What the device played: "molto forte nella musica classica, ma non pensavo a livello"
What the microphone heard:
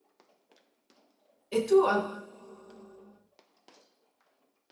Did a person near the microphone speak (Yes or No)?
Yes